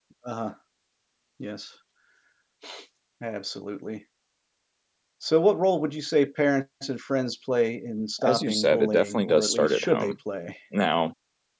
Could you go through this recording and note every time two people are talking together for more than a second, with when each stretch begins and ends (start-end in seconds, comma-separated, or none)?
8.2-10.2